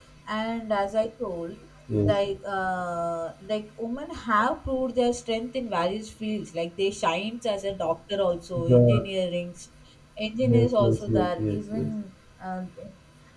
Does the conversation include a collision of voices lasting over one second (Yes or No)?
Yes